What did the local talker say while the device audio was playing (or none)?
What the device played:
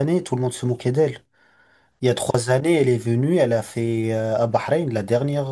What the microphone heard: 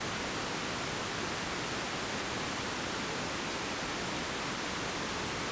none